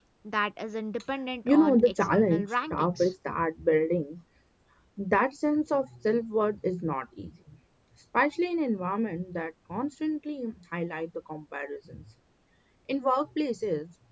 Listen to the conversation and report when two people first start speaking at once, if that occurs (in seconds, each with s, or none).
1.4 s